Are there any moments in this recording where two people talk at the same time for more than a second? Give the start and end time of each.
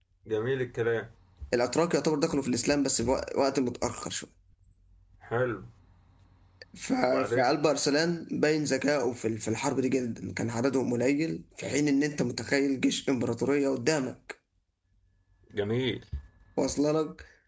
none

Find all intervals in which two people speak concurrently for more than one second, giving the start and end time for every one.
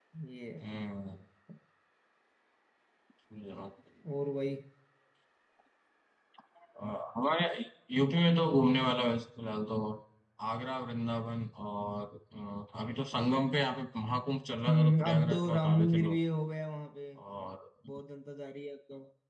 14.7-16.2

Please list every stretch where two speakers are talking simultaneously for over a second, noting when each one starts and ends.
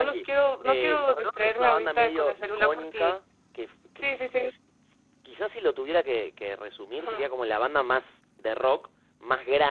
0.6-3.1

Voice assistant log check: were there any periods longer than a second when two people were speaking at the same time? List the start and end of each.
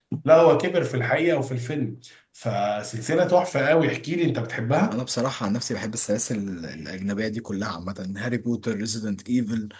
none

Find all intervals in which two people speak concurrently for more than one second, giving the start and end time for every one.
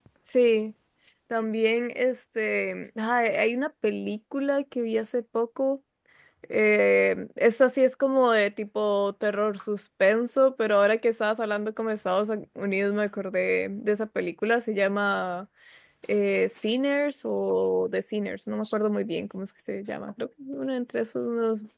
none

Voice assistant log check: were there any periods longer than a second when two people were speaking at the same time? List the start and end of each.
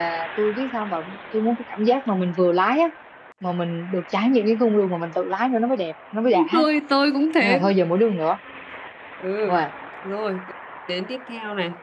none

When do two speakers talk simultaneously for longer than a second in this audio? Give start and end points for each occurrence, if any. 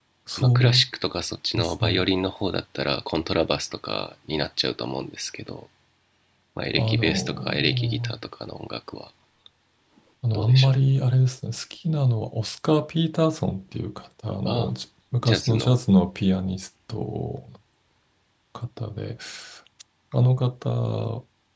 6.8-8.2

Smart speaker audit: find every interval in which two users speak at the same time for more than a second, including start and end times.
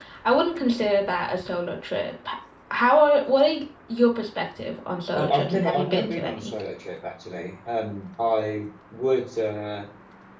5.2-6.6

